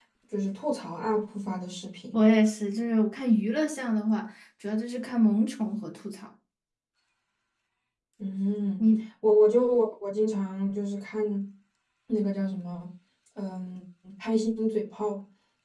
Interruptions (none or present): none